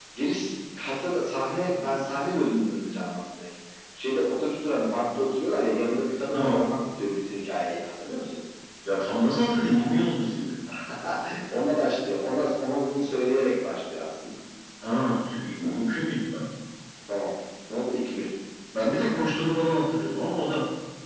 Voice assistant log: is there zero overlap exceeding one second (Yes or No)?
Yes